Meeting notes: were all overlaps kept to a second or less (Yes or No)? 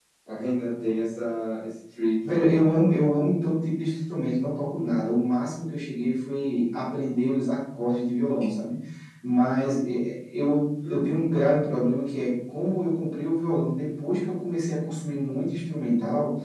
Yes